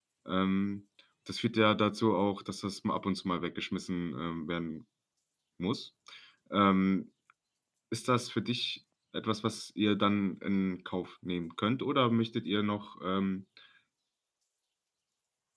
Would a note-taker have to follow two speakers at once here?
No

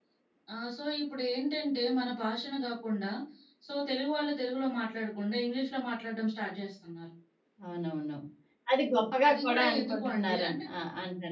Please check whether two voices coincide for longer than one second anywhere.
Yes, from 9.3 s

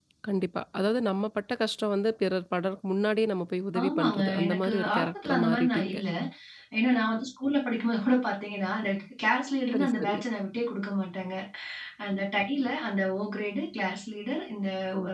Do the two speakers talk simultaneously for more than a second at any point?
Yes, from 3.8 s

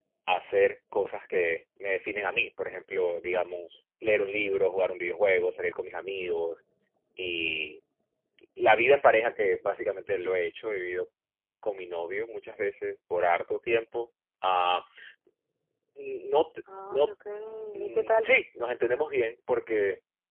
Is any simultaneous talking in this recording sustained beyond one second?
No

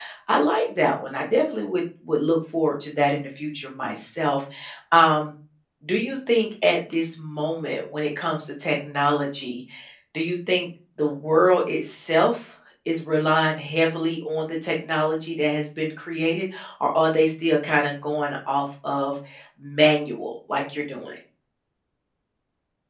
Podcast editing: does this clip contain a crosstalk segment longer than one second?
No

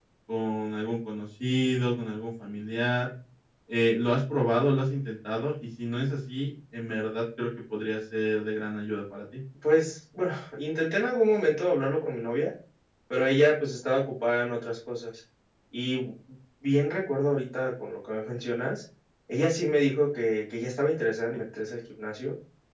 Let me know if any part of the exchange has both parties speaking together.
No

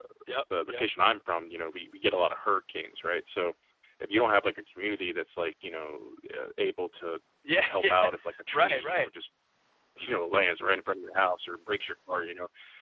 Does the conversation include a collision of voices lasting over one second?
No

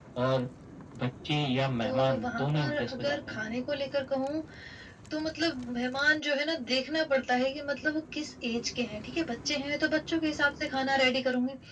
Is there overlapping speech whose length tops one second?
Yes, from 1.8 s

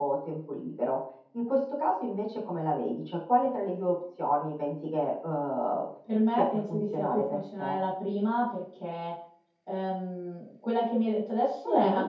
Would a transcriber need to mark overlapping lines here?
Yes, from 6.4 s

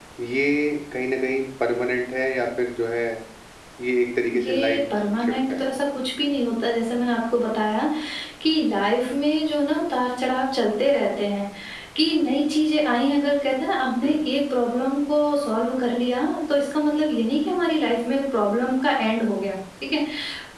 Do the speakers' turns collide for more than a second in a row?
No

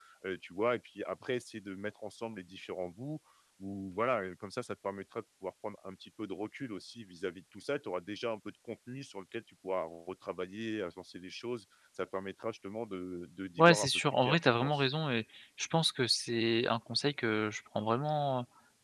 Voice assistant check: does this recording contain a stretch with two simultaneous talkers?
Yes, from 13.6 s

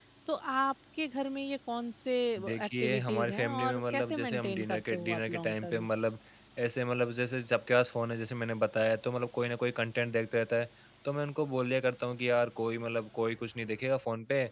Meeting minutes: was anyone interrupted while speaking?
Yes, from 2.6 s

